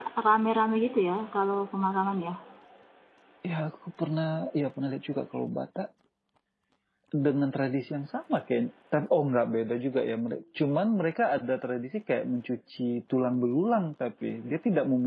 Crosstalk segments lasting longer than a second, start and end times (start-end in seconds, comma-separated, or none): none